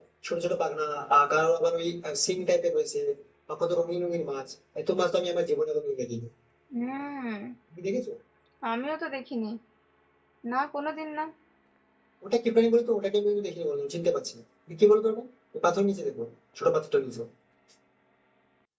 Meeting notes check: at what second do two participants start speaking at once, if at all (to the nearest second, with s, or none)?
none